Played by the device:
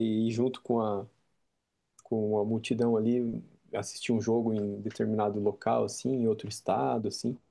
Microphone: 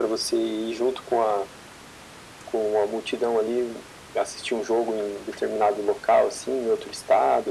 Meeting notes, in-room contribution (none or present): none